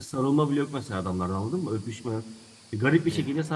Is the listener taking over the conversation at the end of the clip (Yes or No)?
No